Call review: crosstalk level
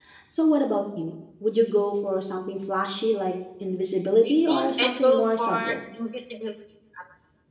present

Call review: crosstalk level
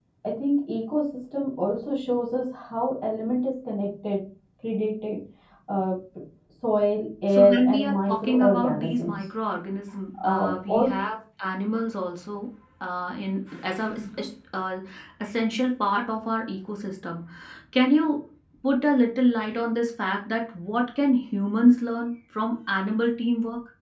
present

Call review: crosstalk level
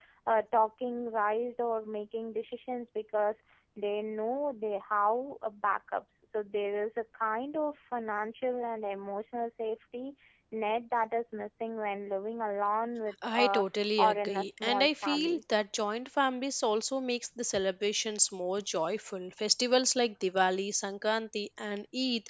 present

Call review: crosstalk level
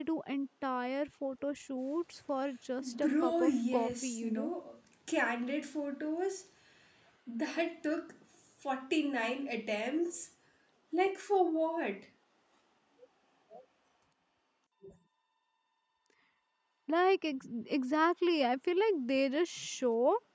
present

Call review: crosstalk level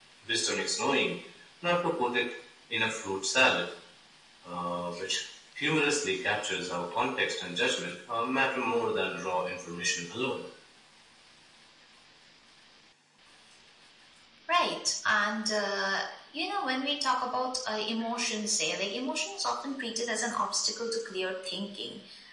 none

